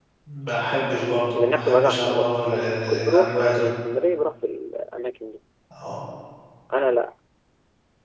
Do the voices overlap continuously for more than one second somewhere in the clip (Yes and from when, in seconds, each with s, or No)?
Yes, from 1.3 s